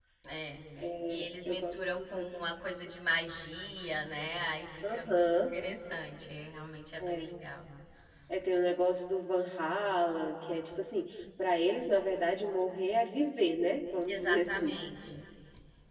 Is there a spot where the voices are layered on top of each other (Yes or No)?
Yes